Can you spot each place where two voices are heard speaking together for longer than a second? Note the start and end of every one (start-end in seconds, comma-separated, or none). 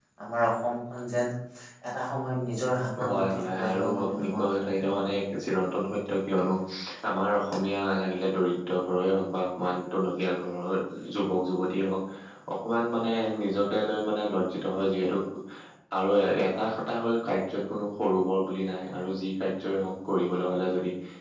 3.1-5.0